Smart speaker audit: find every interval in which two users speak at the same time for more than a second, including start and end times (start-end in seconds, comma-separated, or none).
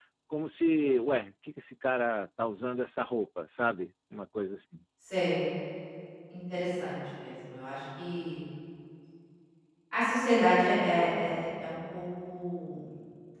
none